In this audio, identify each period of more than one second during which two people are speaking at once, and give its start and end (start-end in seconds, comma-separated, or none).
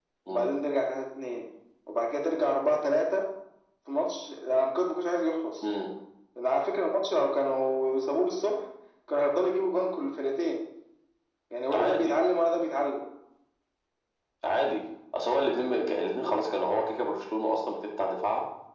none